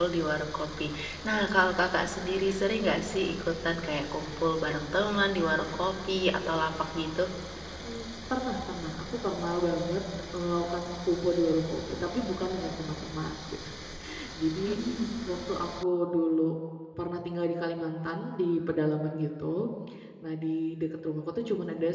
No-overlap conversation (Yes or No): Yes